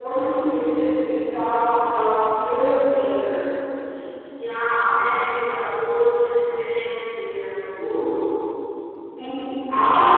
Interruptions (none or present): none